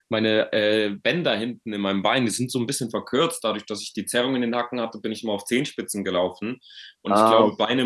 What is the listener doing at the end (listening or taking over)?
listening